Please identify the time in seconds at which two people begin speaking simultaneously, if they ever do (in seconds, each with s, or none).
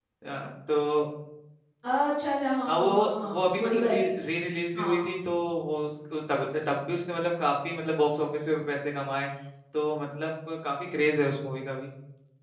2.7 s